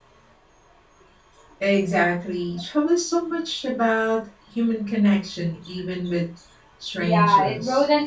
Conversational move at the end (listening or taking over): taking over